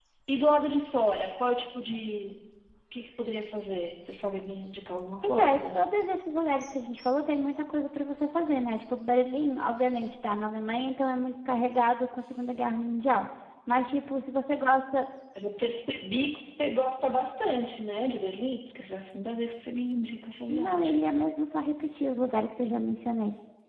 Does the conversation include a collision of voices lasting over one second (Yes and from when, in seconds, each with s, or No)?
No